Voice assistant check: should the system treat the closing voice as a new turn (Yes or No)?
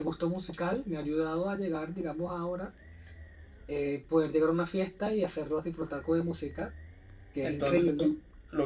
Yes